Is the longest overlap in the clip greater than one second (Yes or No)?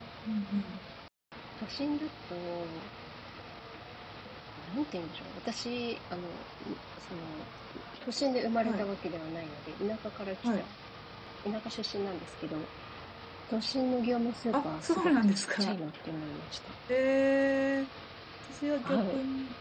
Yes